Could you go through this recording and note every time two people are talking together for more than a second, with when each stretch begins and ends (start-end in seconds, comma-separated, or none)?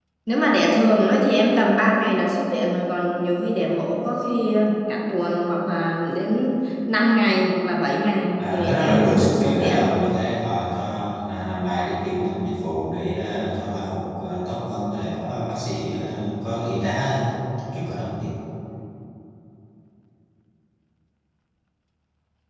8.4-9.8